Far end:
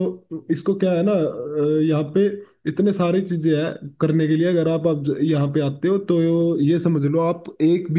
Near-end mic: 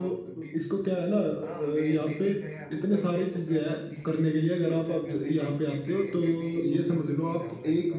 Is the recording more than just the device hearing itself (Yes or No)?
Yes